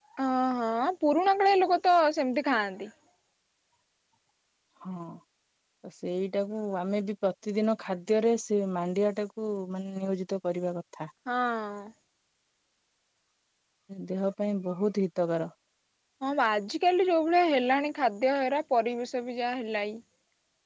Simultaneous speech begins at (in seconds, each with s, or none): none